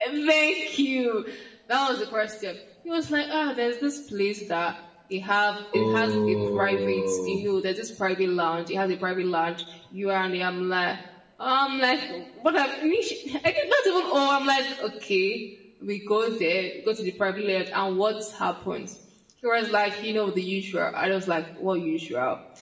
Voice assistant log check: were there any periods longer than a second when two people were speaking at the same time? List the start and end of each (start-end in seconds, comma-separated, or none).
5.7-7.5